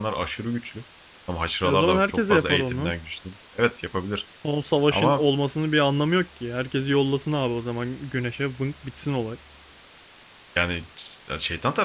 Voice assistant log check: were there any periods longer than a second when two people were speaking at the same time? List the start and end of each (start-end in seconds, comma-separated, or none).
1.6-2.9